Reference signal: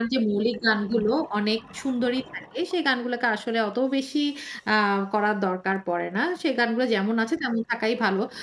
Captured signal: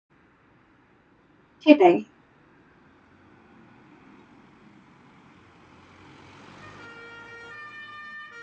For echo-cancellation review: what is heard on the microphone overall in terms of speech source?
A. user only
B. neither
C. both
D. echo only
A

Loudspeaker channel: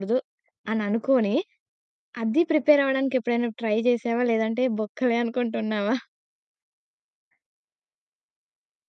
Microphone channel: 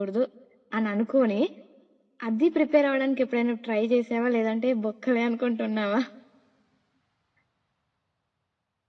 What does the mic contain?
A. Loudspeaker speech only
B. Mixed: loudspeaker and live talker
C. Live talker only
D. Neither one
A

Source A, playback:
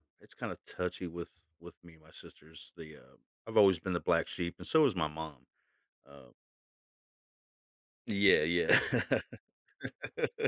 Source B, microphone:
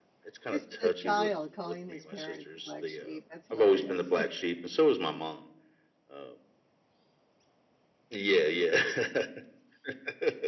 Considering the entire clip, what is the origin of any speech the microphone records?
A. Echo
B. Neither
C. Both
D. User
C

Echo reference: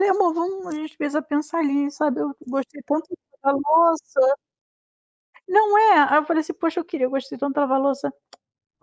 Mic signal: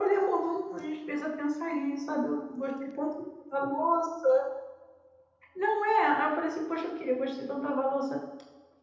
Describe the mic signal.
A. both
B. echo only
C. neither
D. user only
B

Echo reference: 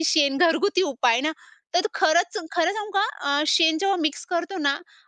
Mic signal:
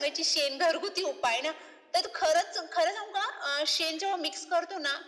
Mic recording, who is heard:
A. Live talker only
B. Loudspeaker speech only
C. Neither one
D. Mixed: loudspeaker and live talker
B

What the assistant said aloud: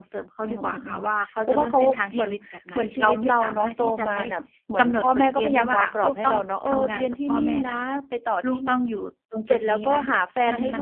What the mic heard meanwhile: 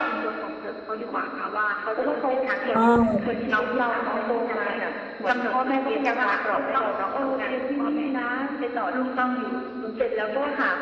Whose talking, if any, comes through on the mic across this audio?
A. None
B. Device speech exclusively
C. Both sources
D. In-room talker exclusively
C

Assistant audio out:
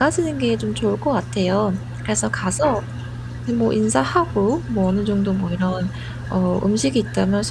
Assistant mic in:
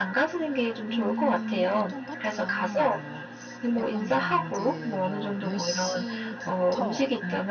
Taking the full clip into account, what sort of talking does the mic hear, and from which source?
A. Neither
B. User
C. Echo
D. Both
D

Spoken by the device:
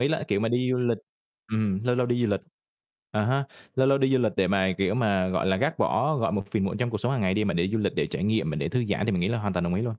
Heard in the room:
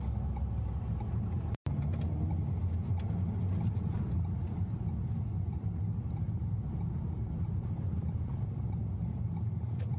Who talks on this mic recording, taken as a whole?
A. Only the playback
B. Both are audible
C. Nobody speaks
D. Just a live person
C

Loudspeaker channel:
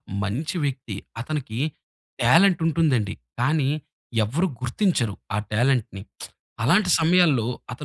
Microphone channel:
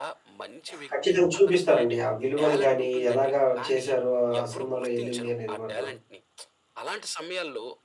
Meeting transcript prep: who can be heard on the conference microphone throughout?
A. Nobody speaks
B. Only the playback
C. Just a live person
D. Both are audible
D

